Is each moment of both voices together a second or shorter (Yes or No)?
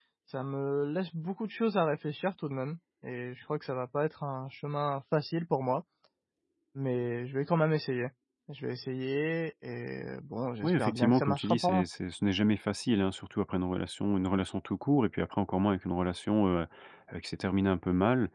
No